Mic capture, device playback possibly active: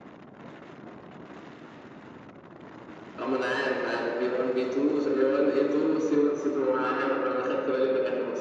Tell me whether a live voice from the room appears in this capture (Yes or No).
No